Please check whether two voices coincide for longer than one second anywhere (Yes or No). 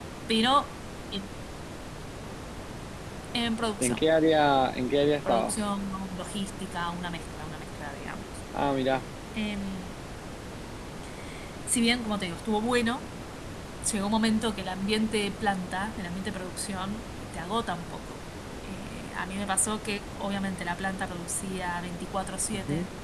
No